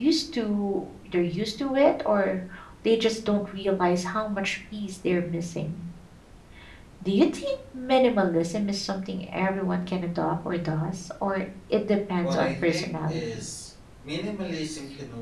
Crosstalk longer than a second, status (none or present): present